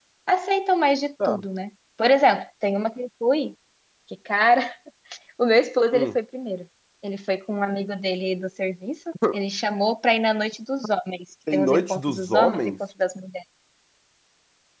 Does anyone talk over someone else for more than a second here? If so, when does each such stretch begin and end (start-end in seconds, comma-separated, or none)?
11.5-12.7